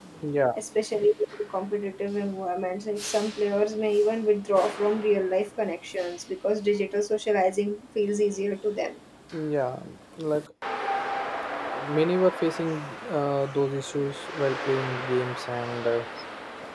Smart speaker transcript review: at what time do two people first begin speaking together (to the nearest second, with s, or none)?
none